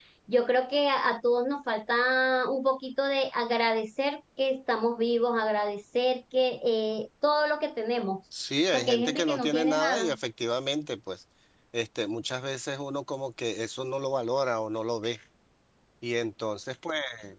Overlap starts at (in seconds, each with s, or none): 8.7 s